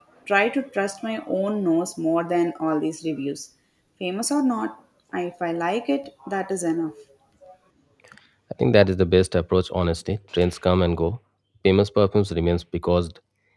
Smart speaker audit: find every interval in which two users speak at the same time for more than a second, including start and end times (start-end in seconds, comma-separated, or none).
none